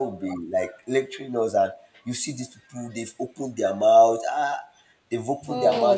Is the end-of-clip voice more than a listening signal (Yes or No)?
No